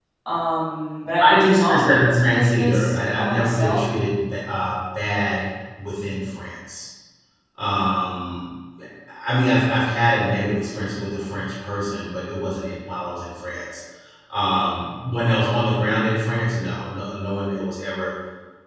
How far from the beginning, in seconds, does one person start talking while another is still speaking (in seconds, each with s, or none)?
1.2 s